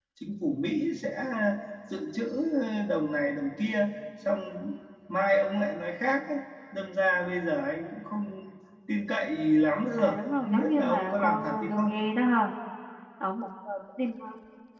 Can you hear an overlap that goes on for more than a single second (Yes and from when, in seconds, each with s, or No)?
Yes, from 10.0 s